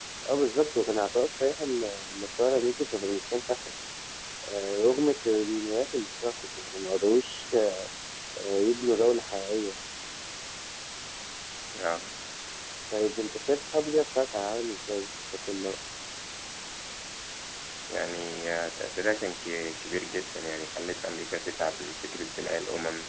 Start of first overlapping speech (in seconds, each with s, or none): none